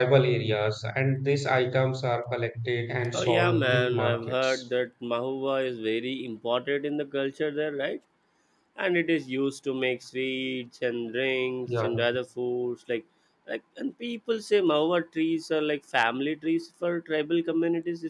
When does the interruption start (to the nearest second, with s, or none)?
3 s